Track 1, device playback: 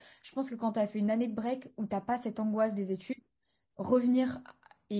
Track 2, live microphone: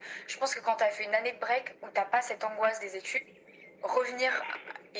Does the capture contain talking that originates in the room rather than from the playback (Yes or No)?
No